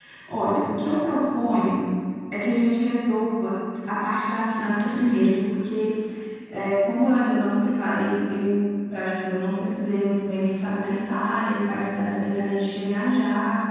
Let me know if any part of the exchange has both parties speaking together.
No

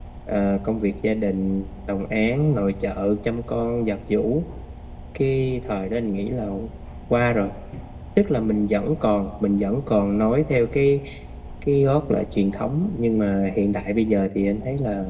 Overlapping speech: No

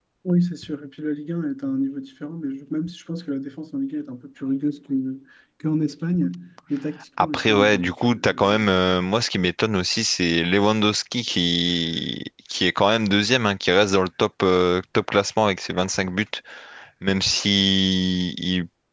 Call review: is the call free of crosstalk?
No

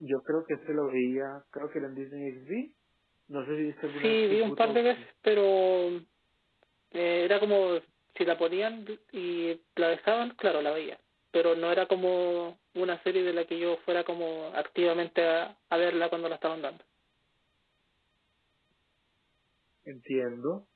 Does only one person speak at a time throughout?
No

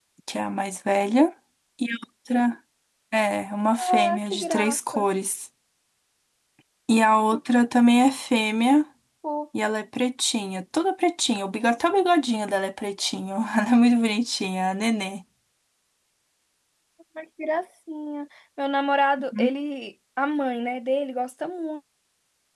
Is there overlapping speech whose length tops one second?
Yes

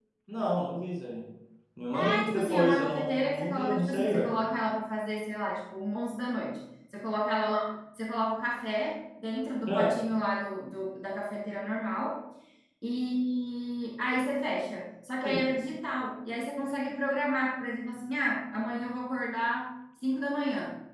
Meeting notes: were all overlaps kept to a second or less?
No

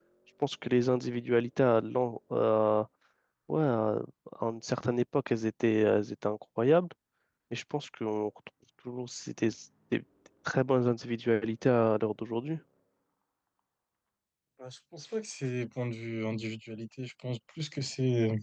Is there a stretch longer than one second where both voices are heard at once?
No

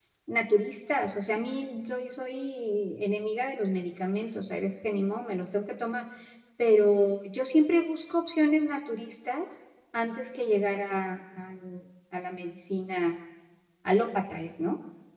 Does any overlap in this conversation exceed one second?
No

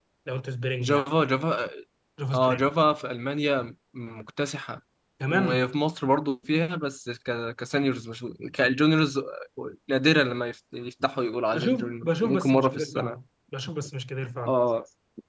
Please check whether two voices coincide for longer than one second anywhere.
Yes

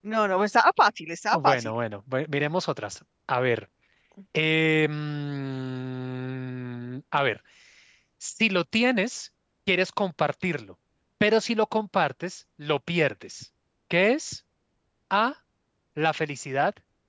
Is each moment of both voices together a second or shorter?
Yes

